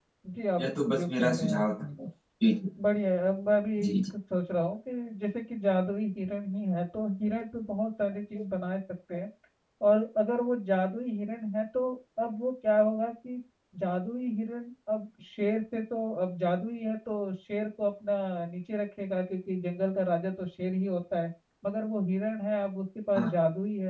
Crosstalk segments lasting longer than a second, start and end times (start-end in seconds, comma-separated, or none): 0.6-2.1